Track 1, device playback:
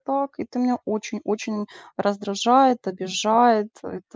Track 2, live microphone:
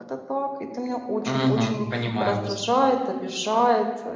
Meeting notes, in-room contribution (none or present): present